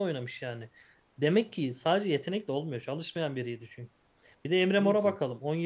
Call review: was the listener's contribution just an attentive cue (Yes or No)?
Yes